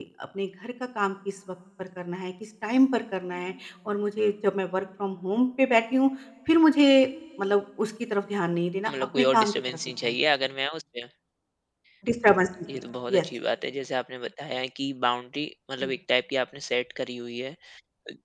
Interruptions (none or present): present